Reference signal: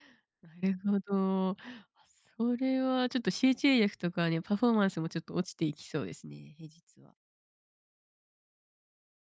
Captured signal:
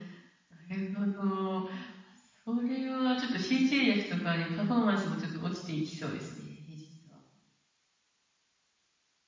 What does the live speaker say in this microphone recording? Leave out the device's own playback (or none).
none